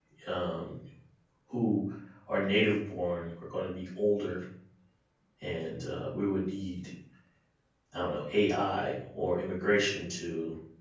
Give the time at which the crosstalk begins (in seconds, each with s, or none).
none